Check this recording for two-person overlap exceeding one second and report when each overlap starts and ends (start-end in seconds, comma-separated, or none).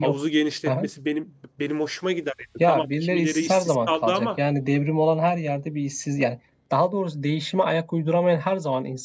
2.7-4.3